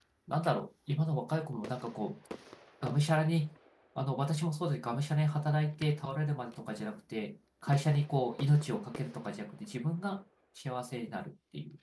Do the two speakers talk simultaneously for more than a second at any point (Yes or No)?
No